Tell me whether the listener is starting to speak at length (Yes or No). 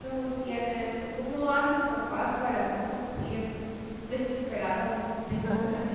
No